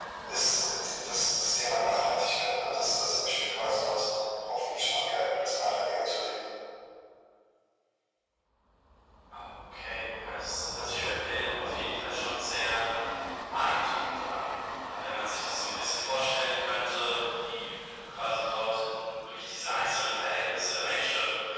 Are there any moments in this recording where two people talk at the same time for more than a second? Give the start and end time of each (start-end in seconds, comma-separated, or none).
none